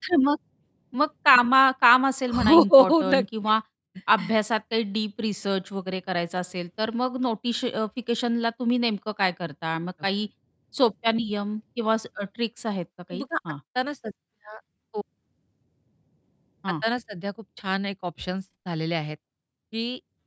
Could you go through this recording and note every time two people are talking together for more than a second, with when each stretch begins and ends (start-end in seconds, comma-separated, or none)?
2.3-3.5